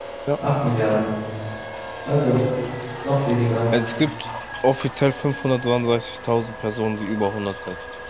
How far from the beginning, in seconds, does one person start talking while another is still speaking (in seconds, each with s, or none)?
none